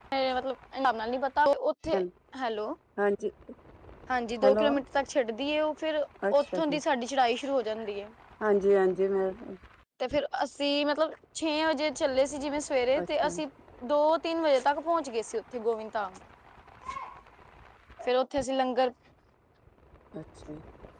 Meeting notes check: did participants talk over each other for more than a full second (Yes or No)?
No